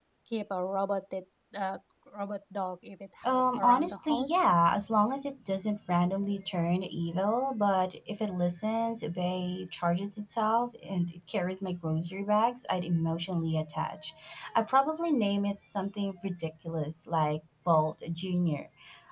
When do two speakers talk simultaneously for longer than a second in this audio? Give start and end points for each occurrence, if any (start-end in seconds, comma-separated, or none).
3.2-4.4